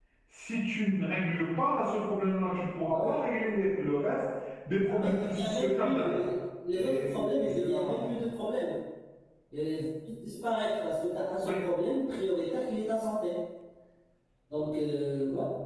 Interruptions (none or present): present